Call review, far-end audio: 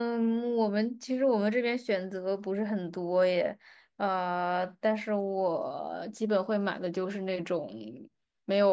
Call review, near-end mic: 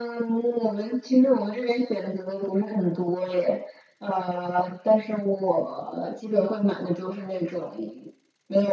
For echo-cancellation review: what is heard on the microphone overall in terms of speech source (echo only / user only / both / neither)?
echo only